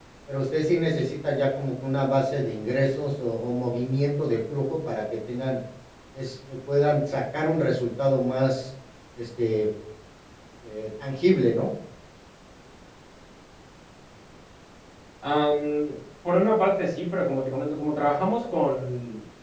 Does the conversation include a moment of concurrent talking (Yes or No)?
No